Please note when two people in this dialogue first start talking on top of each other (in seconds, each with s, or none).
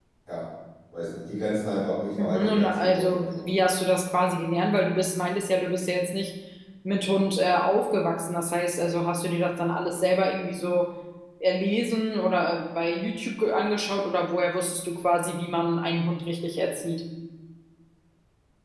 2.2 s